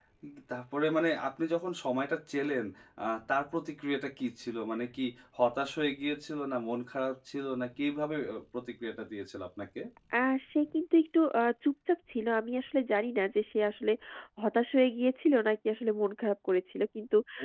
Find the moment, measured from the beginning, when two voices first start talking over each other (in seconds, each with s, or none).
none